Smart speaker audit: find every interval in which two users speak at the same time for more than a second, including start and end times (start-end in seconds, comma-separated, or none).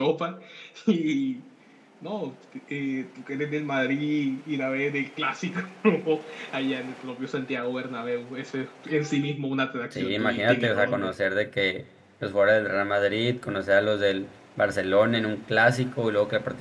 9.9-11.1